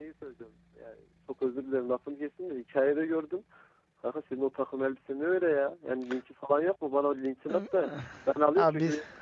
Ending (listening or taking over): listening